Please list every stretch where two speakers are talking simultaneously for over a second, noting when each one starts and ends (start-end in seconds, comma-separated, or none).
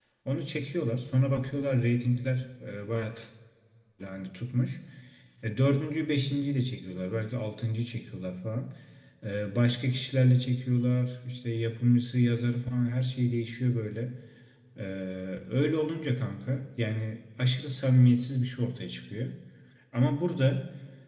none